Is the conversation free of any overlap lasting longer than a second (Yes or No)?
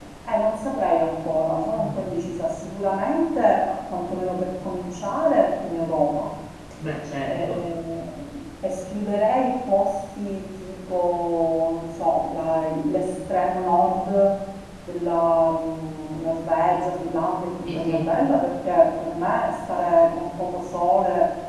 Yes